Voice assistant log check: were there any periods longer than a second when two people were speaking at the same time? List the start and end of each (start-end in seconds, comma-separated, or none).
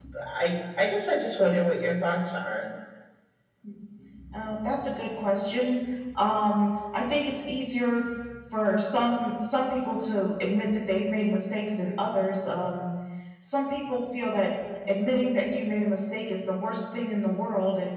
none